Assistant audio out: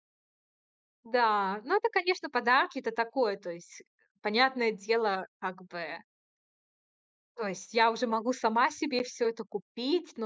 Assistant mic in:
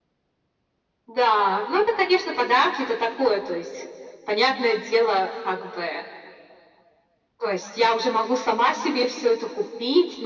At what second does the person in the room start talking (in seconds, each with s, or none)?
none